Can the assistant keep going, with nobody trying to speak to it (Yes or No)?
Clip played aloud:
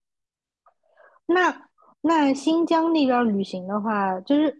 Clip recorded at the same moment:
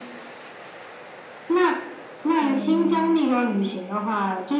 No